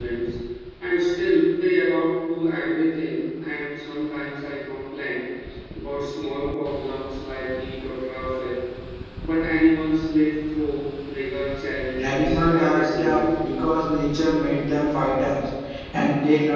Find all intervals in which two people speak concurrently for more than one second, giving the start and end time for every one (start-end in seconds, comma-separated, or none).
12.0-13.4